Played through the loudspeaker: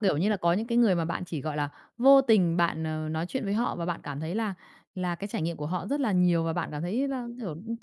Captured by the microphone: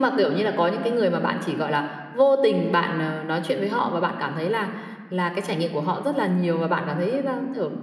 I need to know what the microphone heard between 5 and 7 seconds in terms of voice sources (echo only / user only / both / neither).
echo only